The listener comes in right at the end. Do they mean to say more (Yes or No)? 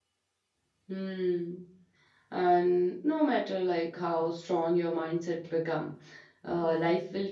No